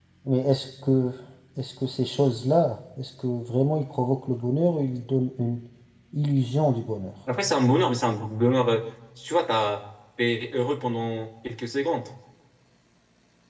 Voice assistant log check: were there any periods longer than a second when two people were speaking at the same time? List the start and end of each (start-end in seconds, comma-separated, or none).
none